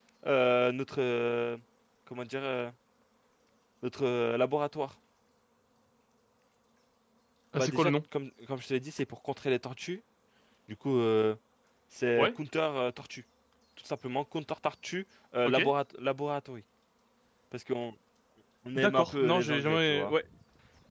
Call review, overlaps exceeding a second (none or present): present